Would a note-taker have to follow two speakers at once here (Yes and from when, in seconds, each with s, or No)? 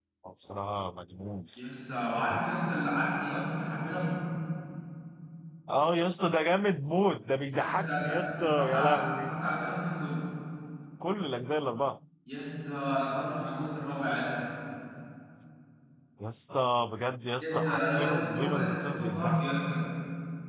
Yes, from 7.5 s